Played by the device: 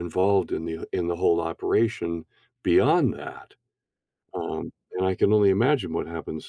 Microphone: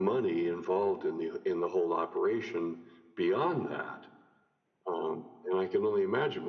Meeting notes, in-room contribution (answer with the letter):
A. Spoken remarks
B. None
B